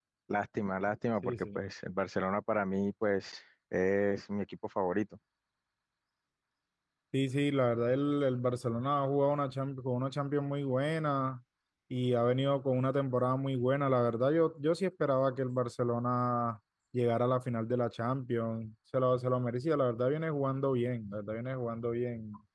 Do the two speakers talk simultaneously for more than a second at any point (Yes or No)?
No